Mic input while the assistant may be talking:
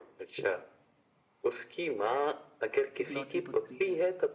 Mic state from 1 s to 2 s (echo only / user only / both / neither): echo only